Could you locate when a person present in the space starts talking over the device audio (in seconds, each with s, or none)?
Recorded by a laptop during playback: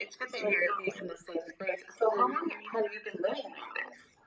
none